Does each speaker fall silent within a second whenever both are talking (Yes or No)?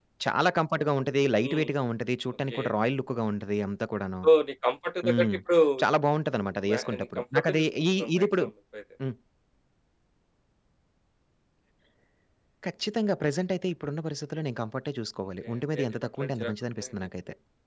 No